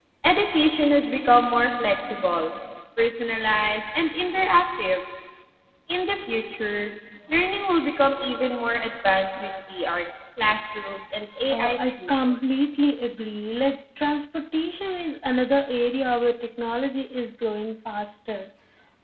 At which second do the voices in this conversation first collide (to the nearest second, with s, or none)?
12 s